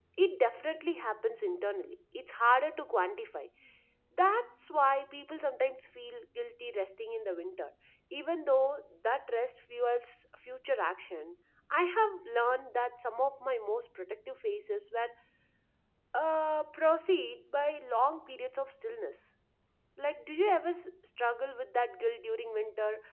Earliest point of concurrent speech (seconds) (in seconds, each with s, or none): none